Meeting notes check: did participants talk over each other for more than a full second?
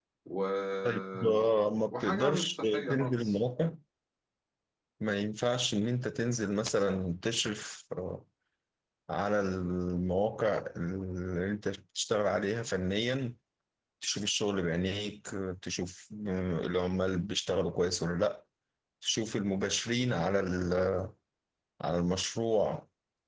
Yes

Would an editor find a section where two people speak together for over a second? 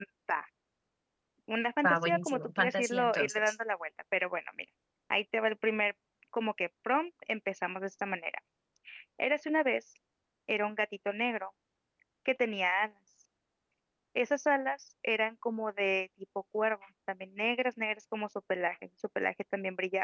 Yes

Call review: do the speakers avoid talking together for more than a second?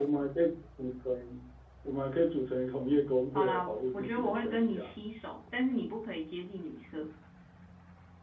No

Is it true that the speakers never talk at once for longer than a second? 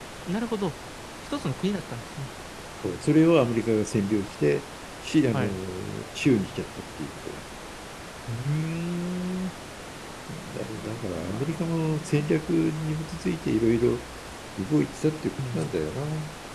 No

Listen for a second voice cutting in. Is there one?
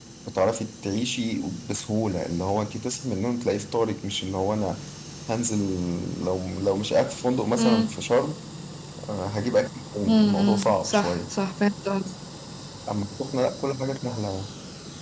Yes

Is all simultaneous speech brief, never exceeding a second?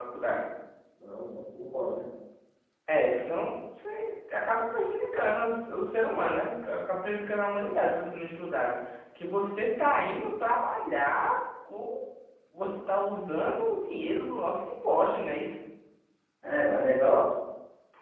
Yes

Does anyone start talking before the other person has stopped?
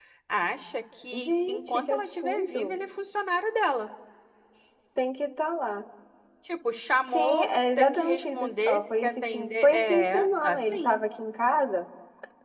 Yes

